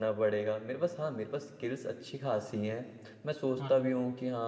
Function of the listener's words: listening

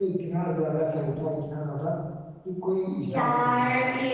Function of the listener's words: taking over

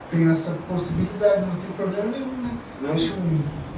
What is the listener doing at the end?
listening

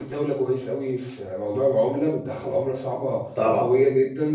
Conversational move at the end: listening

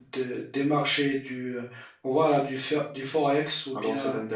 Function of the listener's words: taking over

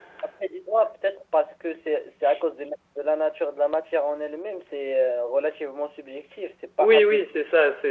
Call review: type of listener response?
taking over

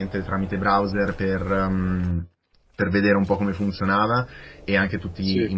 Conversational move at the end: listening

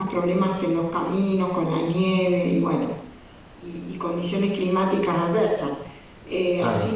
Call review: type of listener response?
listening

